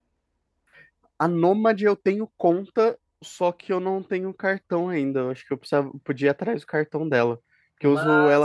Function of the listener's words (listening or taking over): listening